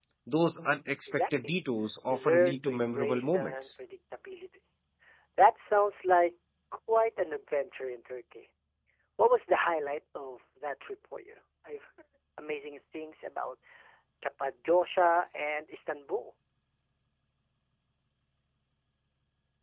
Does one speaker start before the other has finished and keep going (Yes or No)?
Yes